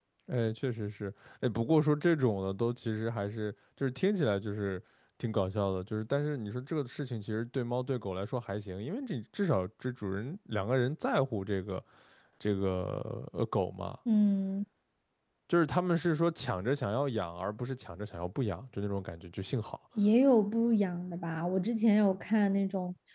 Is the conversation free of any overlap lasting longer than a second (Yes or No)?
Yes